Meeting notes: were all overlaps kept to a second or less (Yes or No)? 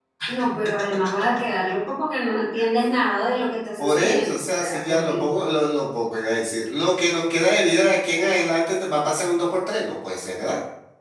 No